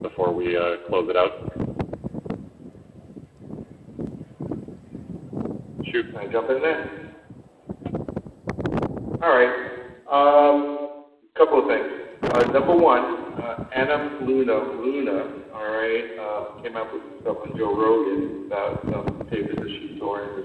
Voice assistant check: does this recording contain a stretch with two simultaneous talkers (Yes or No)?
No